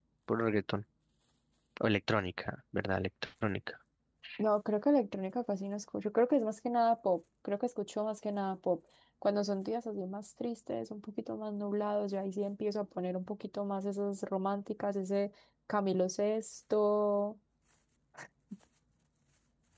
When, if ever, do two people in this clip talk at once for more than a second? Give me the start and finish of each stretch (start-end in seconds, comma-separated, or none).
none